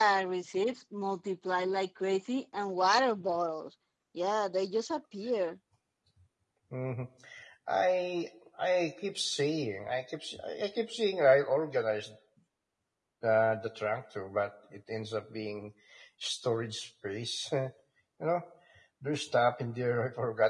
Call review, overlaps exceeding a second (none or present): none